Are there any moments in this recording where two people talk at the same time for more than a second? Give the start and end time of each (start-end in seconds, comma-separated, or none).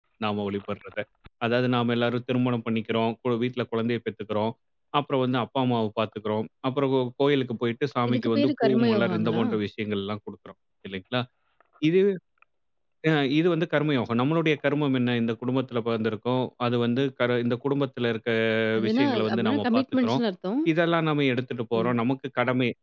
8.1-9.4, 18.9-20.2